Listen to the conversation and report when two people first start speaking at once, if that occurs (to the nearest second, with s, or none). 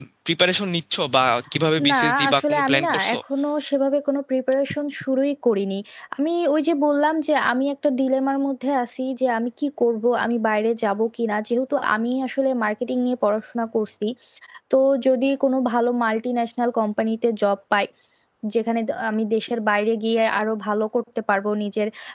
2 s